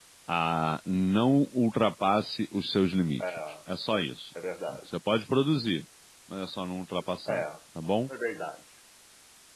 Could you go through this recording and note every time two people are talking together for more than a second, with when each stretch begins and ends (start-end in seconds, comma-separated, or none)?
none